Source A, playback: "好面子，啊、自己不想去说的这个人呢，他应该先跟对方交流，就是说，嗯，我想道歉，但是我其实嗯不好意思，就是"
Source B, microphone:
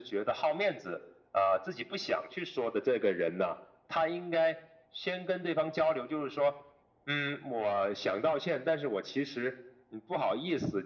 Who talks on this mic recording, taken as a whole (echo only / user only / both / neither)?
echo only